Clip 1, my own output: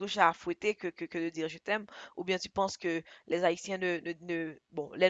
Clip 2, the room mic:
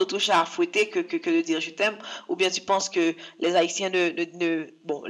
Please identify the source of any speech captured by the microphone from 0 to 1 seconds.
echo only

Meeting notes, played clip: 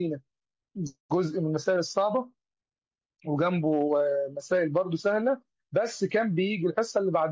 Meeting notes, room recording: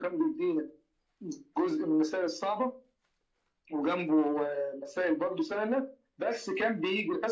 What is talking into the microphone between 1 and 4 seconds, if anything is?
echo only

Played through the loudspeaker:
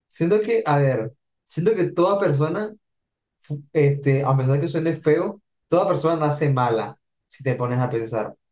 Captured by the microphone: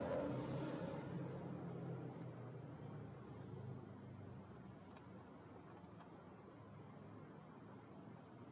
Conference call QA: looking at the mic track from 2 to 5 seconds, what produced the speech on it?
neither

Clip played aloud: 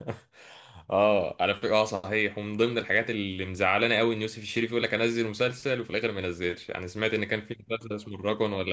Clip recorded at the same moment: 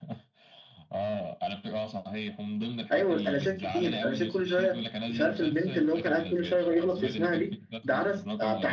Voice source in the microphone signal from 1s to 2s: echo only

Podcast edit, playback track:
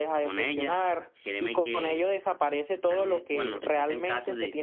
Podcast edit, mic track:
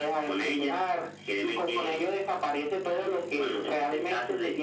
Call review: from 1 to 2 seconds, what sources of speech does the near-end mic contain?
echo only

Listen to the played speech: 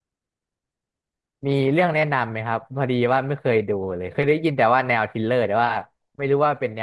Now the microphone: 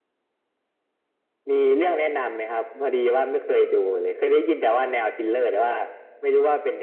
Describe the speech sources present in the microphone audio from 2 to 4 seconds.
echo only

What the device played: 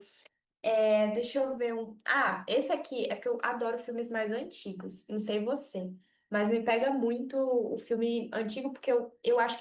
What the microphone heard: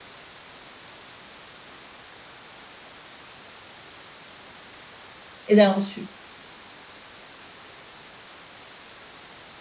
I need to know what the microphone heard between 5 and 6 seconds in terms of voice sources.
user only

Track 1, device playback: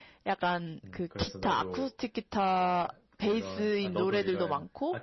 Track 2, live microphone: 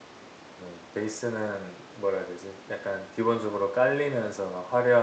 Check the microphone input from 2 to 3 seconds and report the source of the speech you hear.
user only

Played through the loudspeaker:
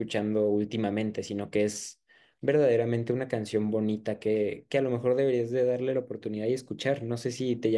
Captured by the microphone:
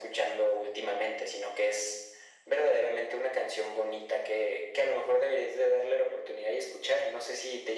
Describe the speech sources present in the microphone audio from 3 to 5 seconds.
echo only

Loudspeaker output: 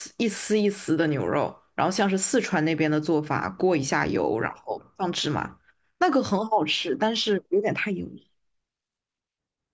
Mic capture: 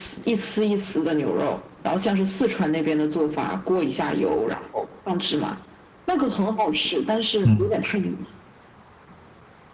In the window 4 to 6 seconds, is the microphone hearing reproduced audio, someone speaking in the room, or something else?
echo only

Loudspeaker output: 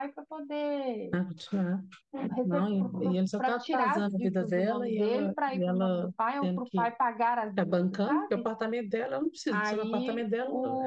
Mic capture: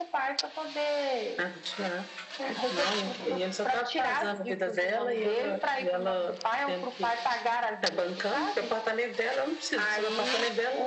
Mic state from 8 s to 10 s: echo only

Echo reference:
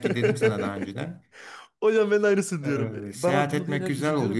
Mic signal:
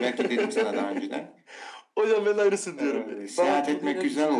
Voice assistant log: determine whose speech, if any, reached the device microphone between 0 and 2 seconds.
echo only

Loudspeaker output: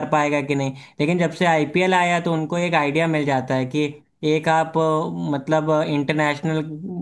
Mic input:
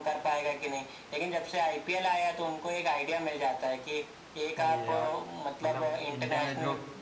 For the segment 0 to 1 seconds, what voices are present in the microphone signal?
echo only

